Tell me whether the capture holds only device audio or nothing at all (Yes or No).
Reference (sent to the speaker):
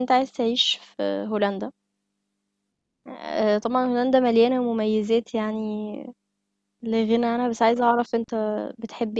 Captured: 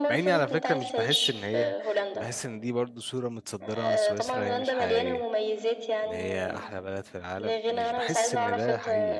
No